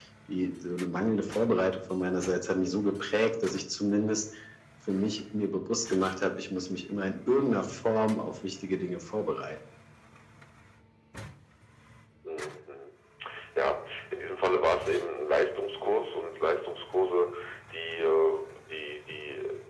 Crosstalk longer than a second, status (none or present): none